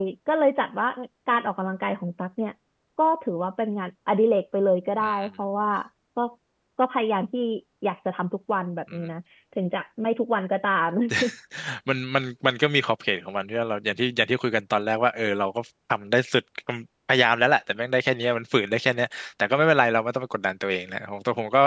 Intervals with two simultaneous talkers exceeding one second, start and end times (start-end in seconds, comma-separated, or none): none